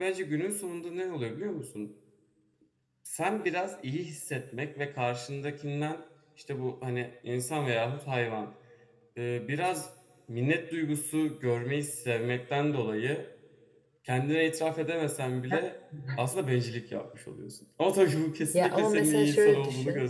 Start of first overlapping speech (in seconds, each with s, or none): 18.5 s